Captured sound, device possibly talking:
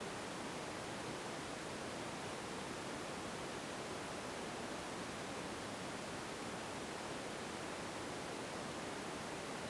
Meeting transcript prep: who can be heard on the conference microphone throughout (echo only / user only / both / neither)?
neither